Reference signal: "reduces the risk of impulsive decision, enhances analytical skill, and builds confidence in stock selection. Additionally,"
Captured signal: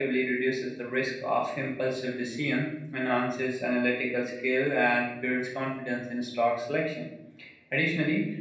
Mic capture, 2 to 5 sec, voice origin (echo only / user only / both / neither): echo only